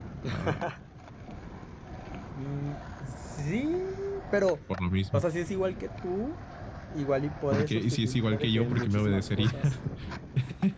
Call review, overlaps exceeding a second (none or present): present